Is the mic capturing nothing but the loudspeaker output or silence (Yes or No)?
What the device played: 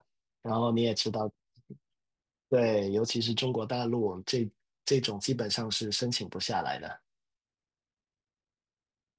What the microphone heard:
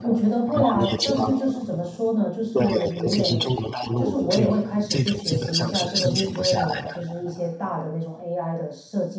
No